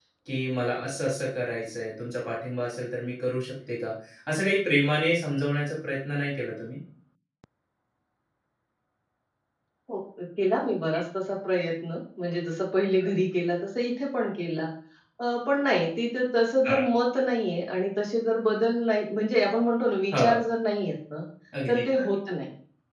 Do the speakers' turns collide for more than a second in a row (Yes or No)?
No